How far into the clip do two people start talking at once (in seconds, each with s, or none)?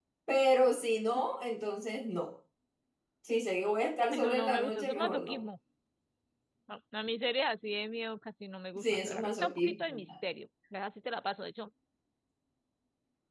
4.1 s